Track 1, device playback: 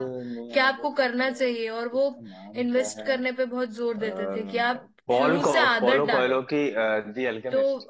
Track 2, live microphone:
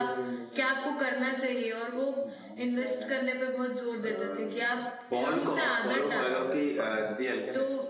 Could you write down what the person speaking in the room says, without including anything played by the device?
हाँ यार मुझे पढ़ना है

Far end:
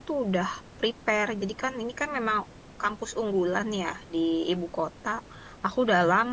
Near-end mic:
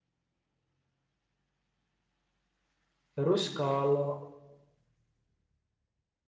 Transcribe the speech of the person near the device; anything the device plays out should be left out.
Terus kalau

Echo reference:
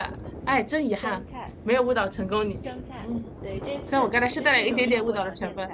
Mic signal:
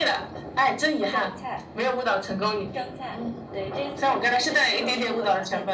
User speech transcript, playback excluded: none

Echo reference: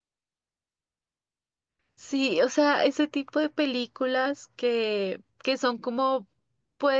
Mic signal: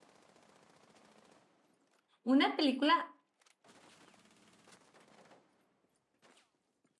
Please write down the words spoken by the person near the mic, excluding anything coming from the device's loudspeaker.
Una película

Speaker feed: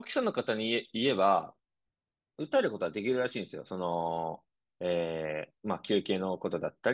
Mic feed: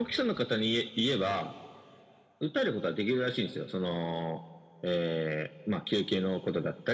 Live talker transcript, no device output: none

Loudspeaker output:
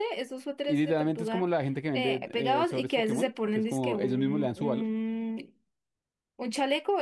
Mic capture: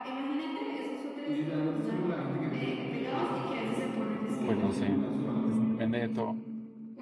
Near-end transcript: pues no sé. Es- Depende de todo.

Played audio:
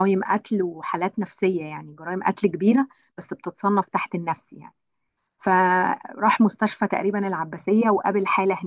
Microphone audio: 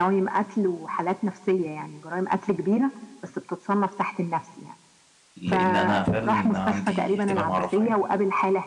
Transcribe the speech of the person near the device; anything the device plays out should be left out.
لان انا فعلا عندي اهتمام اعرفها يعني

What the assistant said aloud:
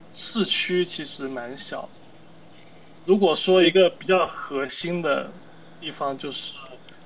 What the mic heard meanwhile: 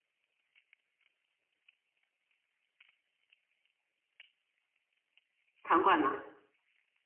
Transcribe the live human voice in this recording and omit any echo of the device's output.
场馆嘛，

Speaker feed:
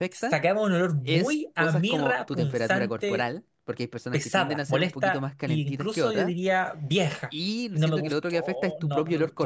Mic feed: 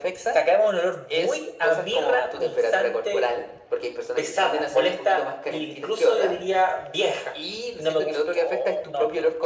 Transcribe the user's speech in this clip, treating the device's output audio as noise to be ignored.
none

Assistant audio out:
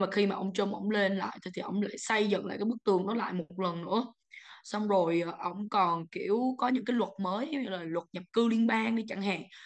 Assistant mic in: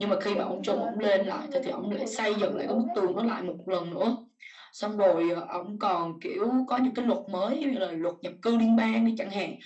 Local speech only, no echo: kiểu không sợ là kiểu những cái người trong quốc hội nó phản đối ông ấy

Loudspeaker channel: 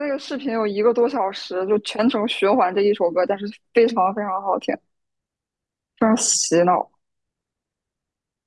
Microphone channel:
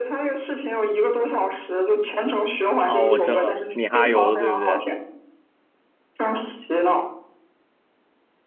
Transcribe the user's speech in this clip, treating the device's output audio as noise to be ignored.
哦，我知道了米哈游对不对？

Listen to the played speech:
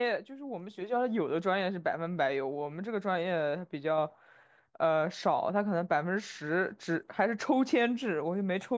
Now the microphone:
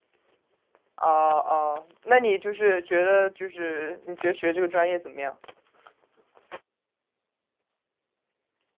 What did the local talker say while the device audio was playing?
哦哦，那你就是觉得就是你觉得学这个专业怎么样？

